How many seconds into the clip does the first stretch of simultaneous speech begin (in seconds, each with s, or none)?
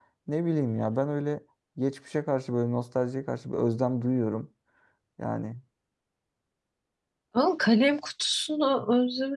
none